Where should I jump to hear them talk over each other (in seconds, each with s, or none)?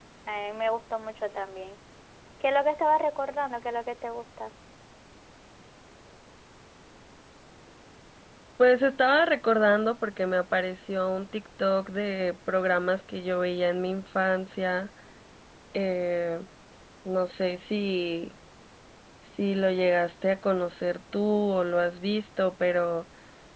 none